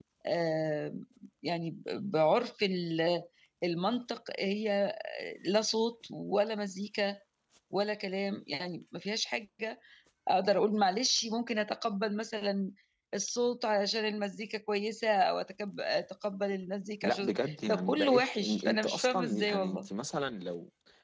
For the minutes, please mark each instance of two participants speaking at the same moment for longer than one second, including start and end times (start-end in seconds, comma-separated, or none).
17.0-19.9